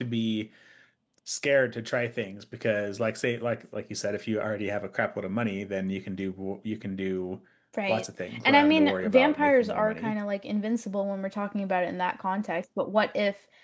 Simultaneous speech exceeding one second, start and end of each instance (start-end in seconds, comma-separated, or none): 8.4-10.1